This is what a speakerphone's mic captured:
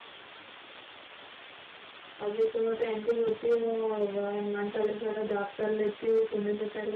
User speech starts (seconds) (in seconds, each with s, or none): 2.2 s